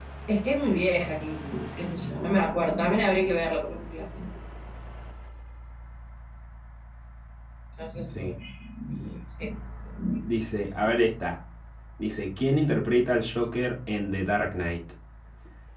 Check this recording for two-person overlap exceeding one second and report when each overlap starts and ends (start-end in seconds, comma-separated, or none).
none